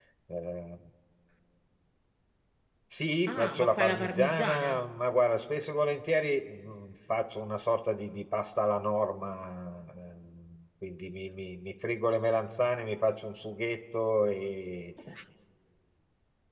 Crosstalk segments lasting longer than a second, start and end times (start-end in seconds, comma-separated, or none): 3.3-4.8